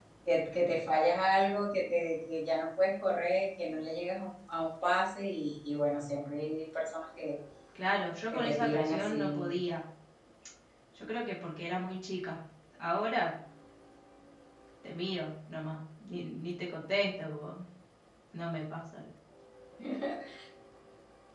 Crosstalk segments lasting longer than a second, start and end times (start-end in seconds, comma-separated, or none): 8.3-9.6